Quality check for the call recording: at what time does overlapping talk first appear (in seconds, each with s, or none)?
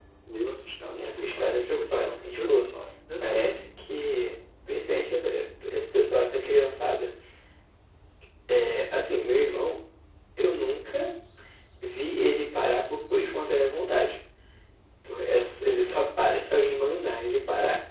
0.8 s